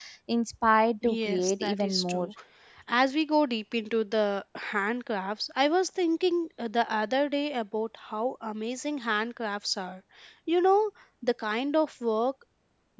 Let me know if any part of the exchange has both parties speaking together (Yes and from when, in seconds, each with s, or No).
Yes, from 1.1 s